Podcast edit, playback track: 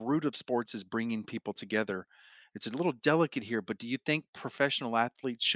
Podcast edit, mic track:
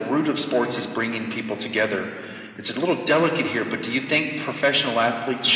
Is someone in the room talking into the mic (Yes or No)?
Yes